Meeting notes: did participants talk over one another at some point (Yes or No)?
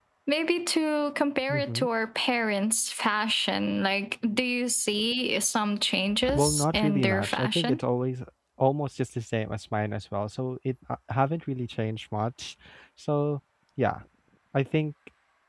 Yes